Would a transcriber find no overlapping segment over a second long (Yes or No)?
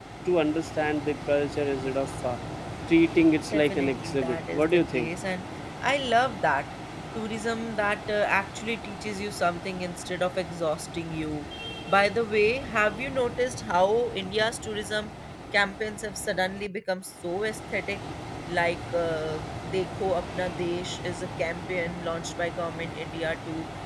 No